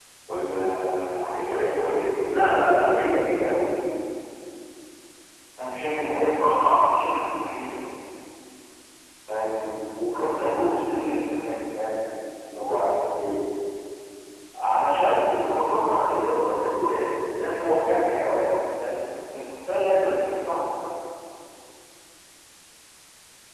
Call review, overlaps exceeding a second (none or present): none